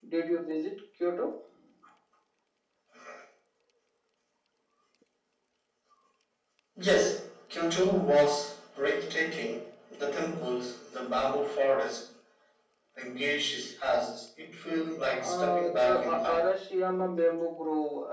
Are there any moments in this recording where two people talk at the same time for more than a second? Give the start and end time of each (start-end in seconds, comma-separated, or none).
15.2-16.5